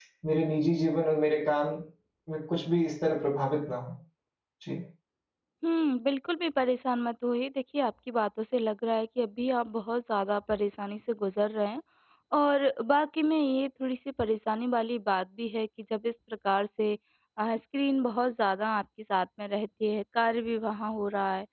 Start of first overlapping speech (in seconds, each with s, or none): none